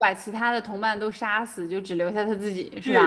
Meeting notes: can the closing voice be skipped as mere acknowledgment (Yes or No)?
No